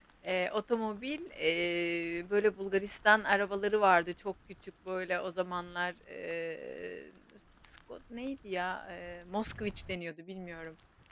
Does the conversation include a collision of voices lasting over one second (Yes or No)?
No